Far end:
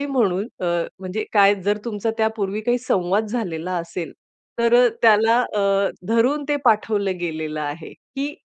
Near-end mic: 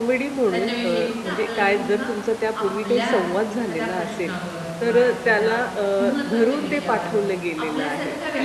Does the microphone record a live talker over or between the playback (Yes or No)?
Yes